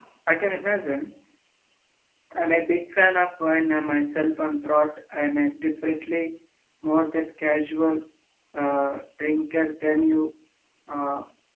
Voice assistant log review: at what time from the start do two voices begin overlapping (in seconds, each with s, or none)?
none